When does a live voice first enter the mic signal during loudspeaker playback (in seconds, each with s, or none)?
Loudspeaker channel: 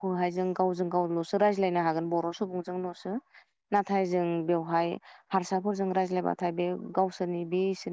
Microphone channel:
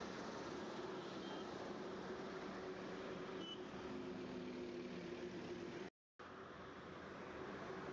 none